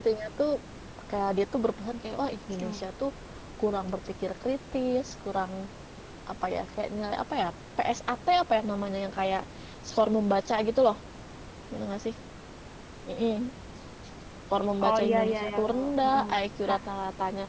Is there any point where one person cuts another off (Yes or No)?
Yes